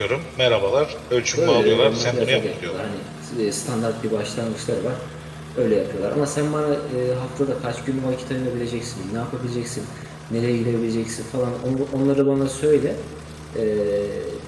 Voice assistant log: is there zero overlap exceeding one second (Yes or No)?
No